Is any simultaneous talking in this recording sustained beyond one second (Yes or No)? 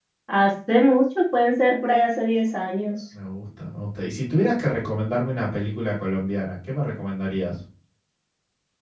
No